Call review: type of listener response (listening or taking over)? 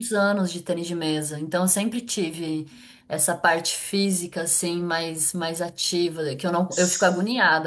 listening